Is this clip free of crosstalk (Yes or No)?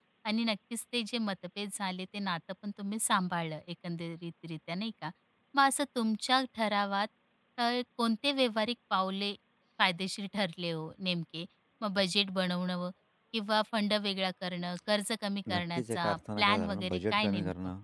No